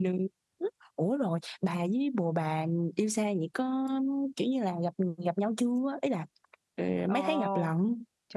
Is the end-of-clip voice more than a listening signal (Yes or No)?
Yes